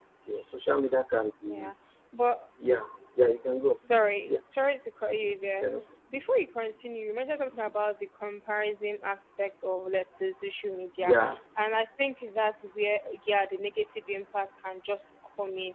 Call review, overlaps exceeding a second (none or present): none